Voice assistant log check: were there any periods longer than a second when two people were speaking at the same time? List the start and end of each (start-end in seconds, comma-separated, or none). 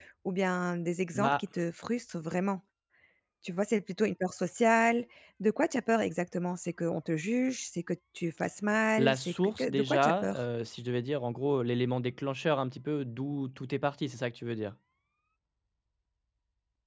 9.0-10.4